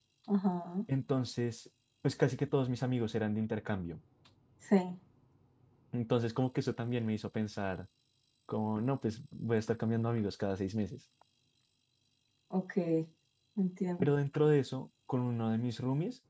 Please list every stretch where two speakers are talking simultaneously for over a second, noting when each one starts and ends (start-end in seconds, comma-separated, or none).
none